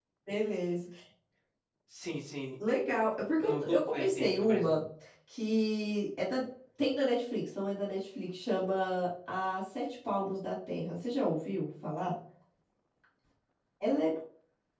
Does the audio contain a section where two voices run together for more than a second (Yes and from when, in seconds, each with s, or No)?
Yes, from 3.4 s